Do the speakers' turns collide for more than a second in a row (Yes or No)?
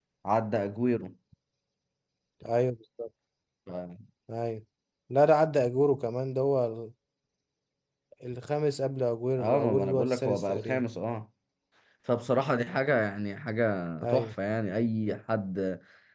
Yes